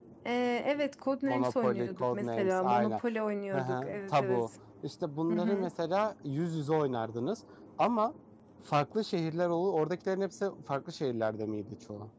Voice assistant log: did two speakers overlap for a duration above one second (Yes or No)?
Yes